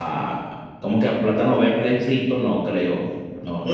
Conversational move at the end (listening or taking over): taking over